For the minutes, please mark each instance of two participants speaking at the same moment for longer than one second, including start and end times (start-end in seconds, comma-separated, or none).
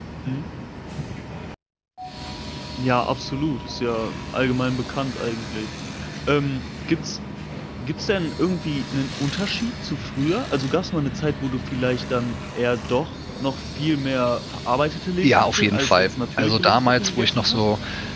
15.2-17.6